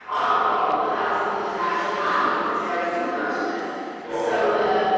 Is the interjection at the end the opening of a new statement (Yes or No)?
No